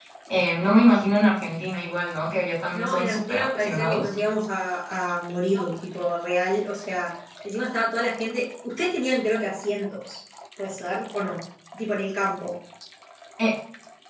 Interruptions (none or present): present